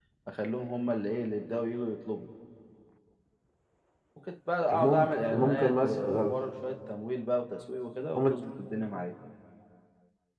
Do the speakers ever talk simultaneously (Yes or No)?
Yes